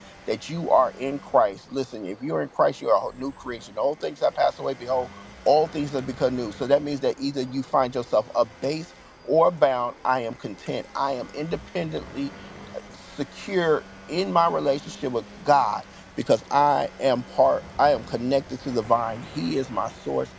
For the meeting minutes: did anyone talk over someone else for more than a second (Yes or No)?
No